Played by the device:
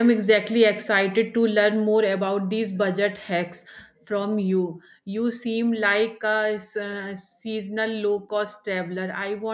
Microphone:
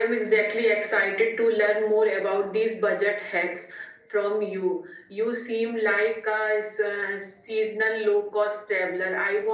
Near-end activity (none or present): none